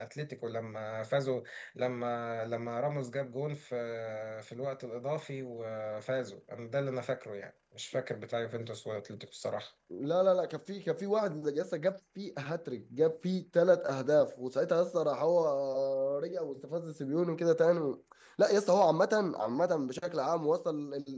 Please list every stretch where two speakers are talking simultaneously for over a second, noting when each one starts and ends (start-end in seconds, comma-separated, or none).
none